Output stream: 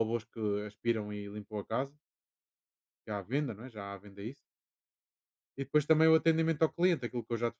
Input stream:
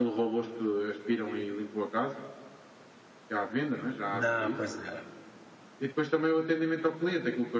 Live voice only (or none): Não, pois era.